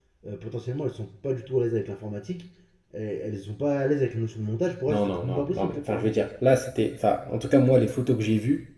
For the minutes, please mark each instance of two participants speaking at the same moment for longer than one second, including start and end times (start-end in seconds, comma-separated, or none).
4.9-6.3